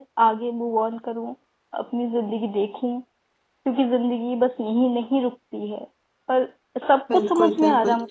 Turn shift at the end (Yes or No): Yes